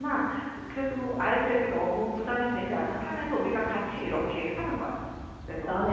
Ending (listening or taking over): taking over